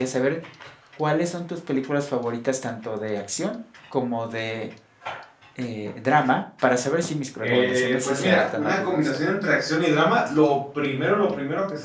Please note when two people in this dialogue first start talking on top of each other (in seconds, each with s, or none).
7.4 s